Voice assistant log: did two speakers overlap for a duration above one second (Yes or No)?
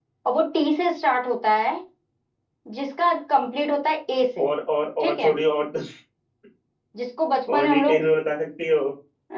No